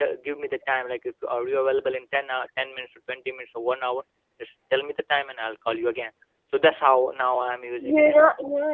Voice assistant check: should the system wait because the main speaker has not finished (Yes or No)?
No